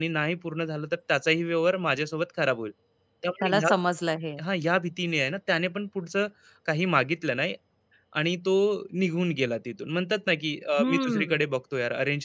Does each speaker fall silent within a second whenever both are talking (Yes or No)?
Yes